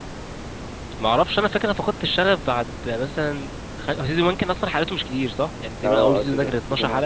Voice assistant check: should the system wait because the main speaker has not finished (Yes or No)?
No